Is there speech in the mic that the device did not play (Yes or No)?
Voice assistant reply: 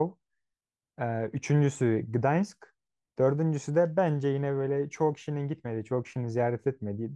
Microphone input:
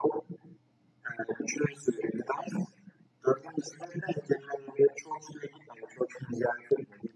No